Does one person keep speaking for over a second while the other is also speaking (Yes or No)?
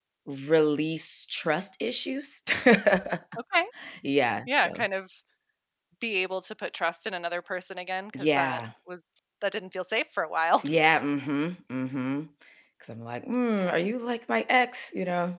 No